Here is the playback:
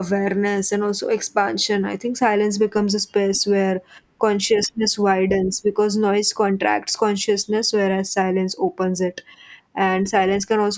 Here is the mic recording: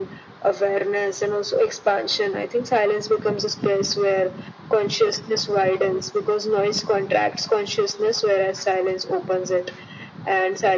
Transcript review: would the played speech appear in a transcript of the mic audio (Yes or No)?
Yes